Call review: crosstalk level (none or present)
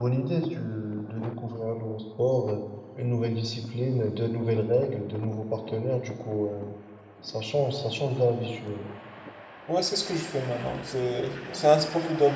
none